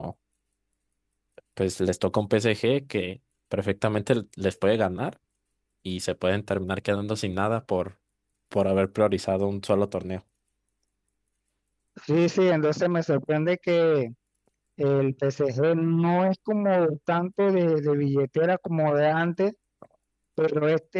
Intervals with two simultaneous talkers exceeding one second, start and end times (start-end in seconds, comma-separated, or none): none